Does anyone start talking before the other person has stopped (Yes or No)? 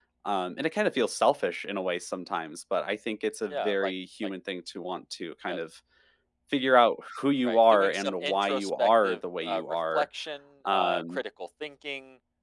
Yes